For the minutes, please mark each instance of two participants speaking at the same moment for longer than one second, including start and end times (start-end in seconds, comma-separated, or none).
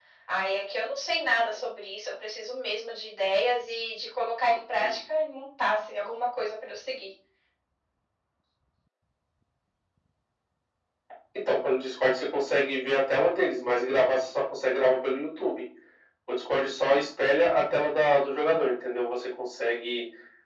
none